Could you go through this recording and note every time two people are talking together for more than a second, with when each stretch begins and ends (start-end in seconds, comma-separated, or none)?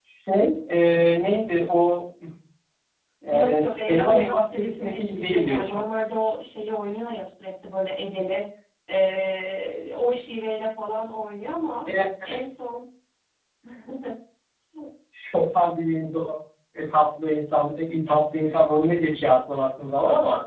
3.3-5.8